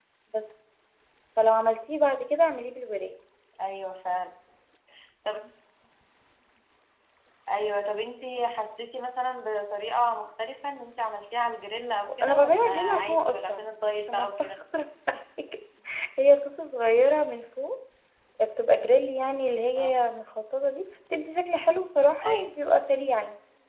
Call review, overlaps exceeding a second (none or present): present